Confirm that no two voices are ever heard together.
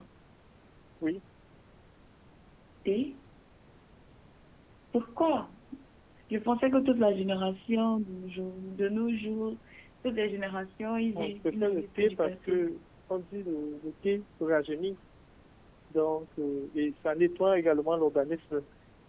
No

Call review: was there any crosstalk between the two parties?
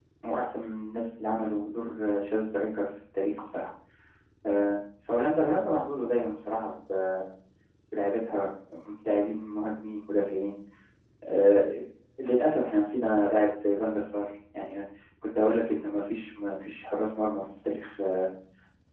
No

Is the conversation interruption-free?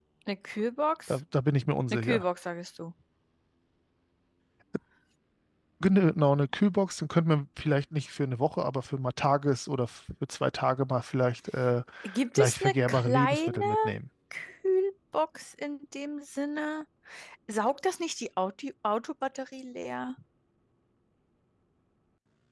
No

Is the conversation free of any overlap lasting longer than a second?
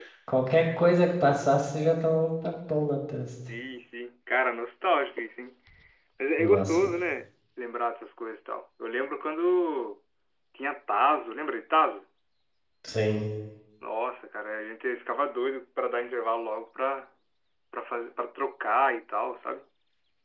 Yes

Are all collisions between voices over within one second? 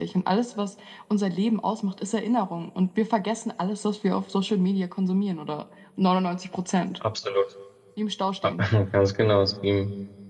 Yes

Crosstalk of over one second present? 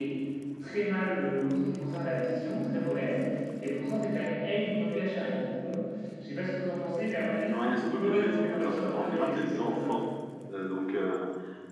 Yes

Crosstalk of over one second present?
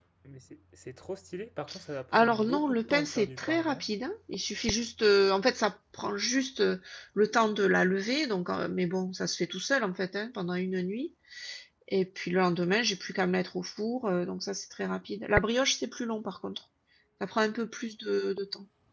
Yes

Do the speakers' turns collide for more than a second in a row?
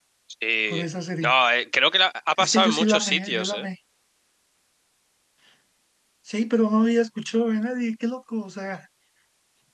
Yes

